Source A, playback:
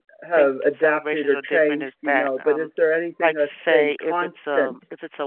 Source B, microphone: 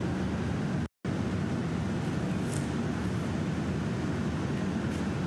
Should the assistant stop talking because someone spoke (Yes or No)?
No